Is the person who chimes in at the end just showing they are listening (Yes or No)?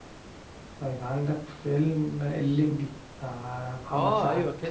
No